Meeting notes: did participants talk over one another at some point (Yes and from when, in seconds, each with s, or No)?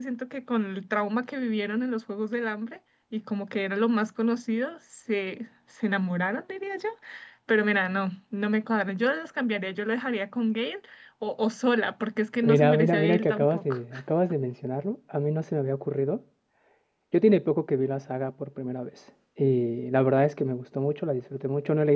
Yes, from 12.4 s